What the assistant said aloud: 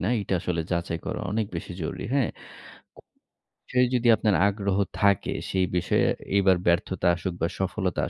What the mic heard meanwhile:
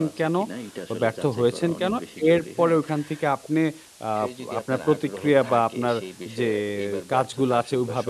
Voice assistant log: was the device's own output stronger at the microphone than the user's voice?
No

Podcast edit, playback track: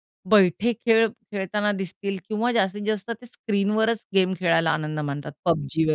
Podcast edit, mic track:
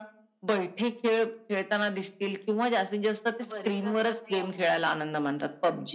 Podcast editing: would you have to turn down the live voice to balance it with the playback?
No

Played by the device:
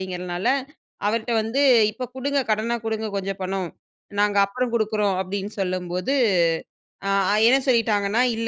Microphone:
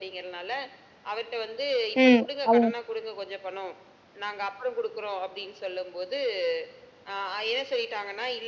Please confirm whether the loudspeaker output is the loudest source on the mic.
No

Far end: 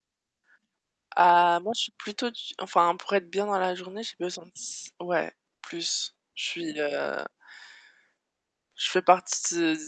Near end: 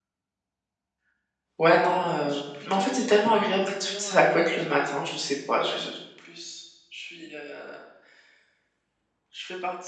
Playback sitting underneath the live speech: Yes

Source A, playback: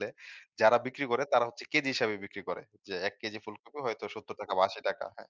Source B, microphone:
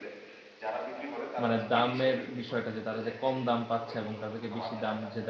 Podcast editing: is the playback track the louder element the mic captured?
No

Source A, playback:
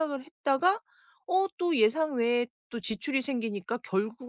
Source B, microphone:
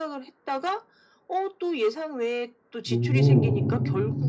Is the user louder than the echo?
Yes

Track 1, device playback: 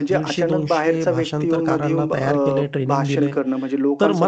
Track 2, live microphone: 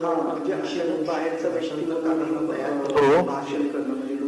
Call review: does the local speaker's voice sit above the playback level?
Yes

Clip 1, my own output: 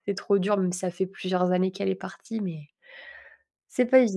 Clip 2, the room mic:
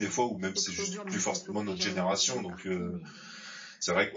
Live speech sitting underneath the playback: No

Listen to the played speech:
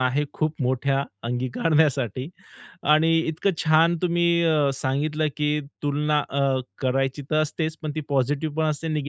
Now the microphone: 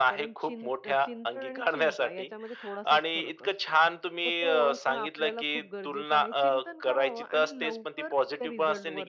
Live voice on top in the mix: No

